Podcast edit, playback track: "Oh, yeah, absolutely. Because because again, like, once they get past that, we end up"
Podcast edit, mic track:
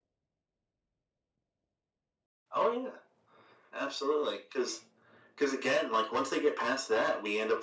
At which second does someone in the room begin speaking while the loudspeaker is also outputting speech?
none

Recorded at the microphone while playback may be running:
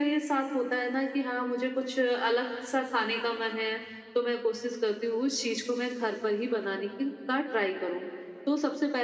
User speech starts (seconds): none

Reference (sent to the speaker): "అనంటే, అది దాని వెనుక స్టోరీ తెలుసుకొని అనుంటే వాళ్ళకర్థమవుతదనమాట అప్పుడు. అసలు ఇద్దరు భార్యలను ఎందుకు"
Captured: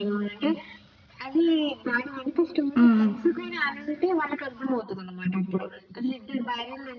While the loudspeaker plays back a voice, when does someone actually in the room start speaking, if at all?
2.8 s

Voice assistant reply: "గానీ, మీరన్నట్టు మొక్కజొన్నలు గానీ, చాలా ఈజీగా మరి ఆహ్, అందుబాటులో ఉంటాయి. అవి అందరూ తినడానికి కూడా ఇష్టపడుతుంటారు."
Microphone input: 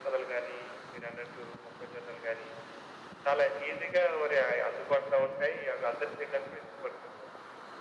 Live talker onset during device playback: none

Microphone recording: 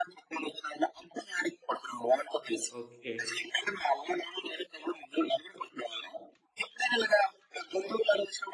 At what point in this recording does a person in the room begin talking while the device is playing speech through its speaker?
2.8 s

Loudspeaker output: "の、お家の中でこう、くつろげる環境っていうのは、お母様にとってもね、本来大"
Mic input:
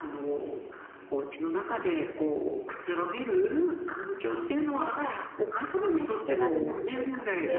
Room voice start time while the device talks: 3.9 s

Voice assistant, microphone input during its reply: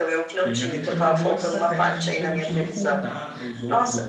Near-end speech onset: 0.3 s

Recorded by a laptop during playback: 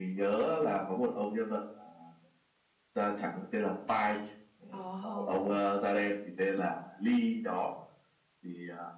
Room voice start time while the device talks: 4.8 s

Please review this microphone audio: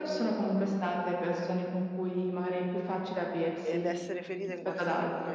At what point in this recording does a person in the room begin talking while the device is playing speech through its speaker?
3.6 s

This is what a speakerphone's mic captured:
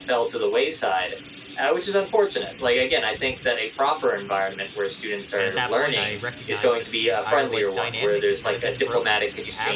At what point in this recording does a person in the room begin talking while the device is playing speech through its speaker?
5.3 s

